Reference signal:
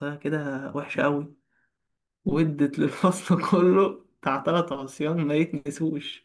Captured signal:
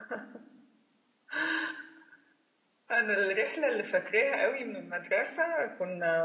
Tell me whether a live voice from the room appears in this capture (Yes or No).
Yes